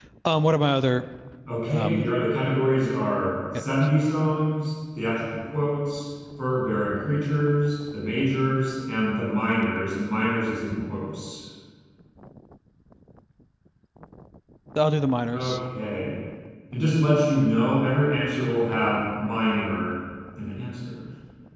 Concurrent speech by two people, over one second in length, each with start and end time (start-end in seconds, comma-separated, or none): none